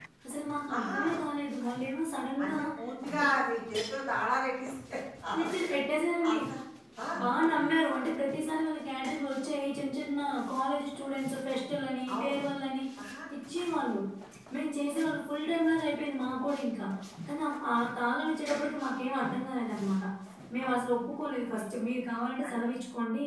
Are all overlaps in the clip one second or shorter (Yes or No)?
Yes